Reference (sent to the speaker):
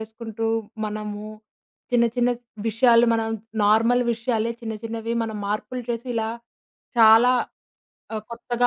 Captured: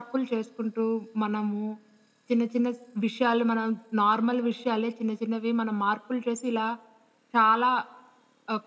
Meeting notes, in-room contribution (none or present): none